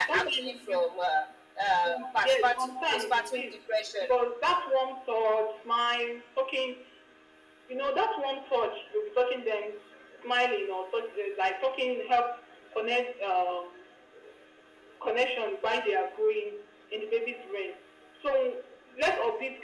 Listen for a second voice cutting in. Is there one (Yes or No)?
Yes